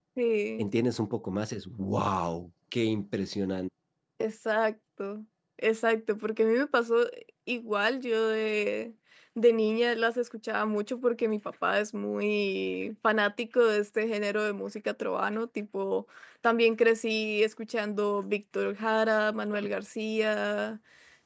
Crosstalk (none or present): none